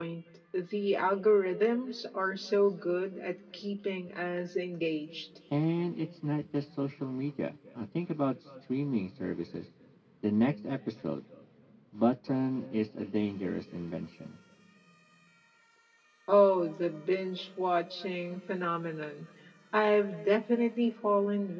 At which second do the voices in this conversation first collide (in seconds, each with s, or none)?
none